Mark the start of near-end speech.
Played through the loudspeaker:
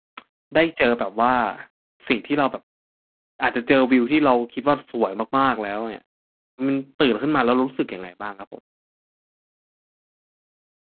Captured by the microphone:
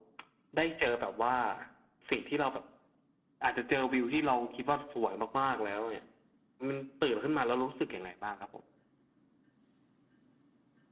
none

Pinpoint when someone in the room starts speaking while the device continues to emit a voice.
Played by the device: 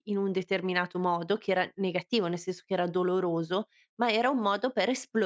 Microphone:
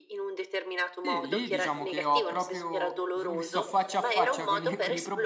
1.0 s

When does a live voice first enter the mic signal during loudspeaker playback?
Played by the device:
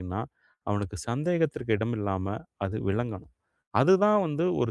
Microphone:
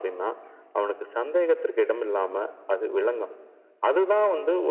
none

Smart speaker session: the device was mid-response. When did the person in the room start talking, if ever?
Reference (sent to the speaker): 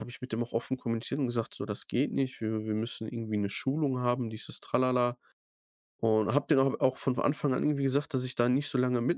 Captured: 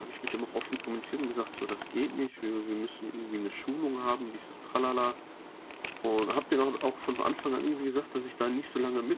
none

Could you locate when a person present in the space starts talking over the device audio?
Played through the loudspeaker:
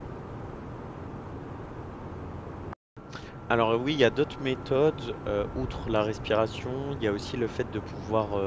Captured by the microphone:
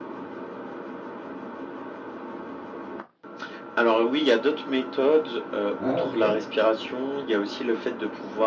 5.8 s

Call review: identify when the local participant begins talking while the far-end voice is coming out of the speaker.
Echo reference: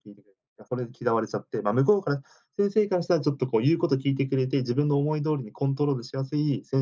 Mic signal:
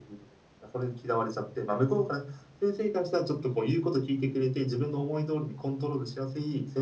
none

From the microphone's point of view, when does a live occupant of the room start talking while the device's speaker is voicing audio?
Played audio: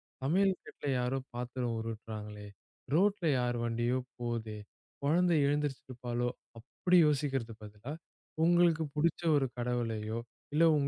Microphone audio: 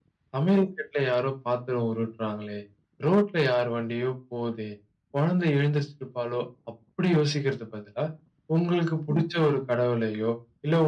none

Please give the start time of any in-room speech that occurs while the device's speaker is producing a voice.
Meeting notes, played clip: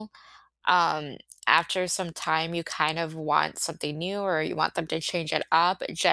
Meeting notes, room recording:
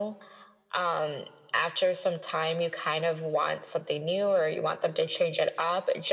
none

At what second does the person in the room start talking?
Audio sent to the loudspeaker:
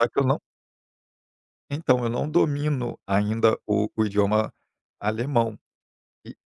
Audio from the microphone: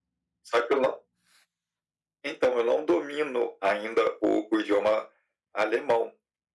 none

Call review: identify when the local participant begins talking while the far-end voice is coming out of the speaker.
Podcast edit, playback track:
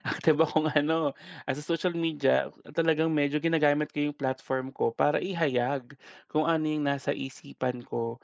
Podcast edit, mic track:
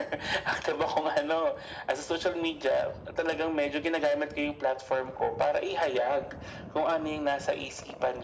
none

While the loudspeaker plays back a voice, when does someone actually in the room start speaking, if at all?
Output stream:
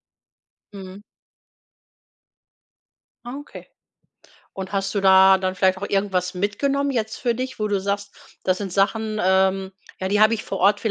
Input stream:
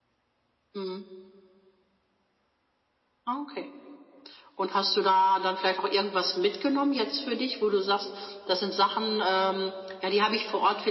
none

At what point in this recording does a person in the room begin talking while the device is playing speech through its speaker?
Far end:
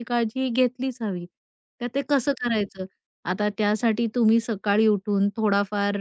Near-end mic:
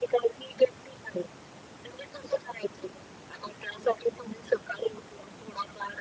none

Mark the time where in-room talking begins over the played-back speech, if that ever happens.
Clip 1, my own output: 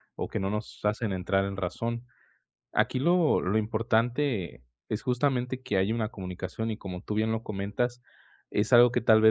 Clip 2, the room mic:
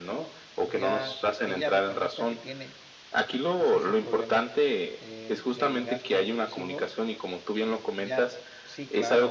0.6 s

